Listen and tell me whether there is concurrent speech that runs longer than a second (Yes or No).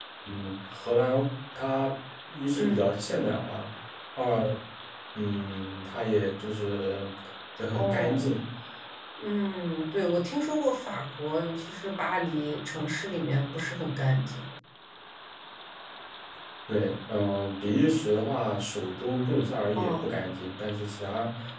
No